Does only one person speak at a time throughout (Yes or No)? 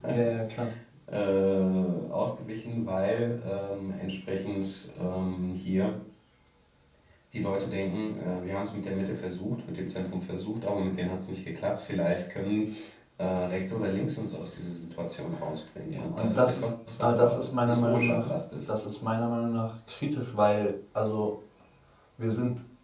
No